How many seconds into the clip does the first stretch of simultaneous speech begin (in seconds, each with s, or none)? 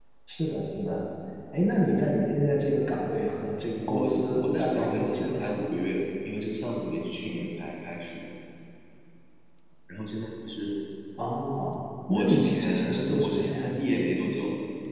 3.8 s